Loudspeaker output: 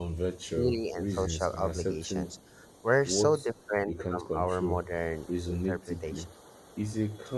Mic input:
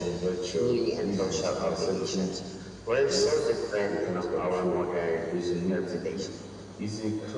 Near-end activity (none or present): none